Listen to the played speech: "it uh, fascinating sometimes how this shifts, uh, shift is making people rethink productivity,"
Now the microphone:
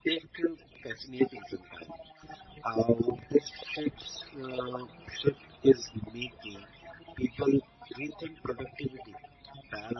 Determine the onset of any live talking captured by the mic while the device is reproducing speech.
none

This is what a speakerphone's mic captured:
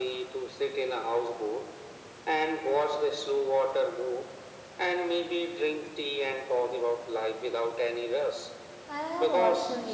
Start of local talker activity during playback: 8.9 s

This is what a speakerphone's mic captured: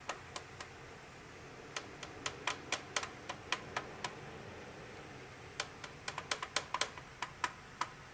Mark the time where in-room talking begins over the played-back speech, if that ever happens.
none

